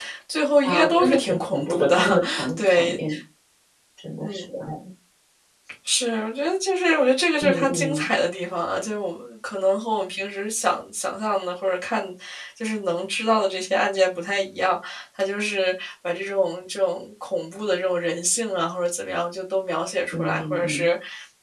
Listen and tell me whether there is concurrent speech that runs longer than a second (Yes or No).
Yes